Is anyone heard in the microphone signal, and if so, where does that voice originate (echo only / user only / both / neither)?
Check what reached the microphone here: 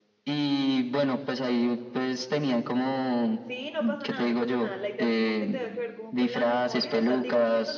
both